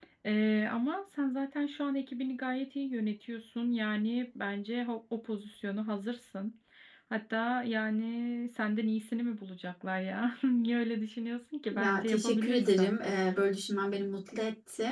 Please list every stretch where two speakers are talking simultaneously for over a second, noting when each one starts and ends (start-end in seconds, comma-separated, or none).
11.7-12.9